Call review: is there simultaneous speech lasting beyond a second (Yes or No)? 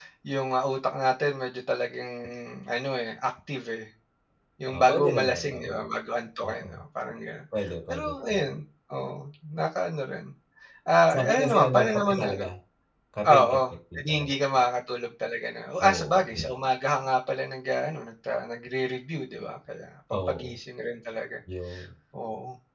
Yes